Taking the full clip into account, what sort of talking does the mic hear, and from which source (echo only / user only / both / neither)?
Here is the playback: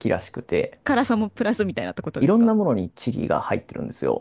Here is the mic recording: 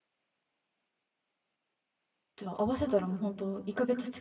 user only